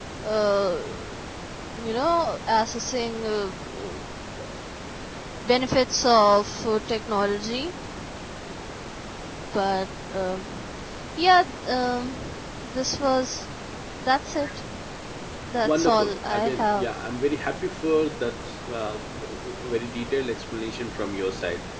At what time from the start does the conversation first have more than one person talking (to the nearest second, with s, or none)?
16 s